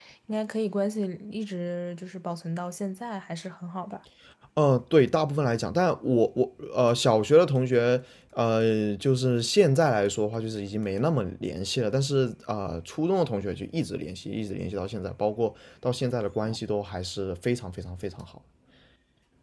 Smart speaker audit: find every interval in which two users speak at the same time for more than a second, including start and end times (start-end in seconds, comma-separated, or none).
none